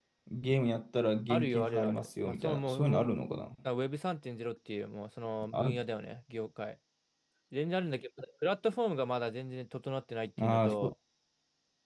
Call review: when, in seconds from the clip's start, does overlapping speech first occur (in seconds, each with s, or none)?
1.3 s